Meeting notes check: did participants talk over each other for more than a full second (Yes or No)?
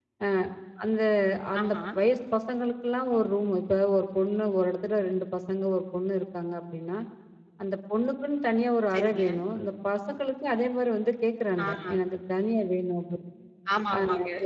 No